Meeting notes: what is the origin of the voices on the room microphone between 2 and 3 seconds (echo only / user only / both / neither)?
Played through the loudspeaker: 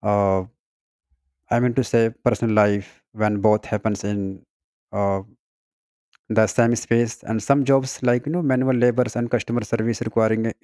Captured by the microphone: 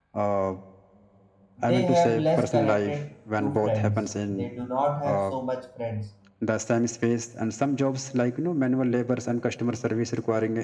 both